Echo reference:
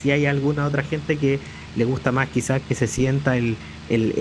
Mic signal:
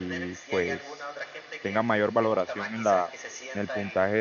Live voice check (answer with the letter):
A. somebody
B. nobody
A